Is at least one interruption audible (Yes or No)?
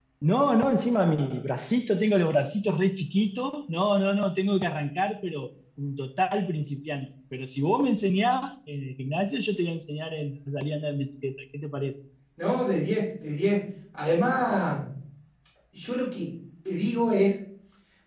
No